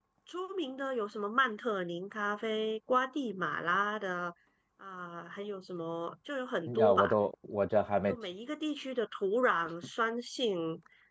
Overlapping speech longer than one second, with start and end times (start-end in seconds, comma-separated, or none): none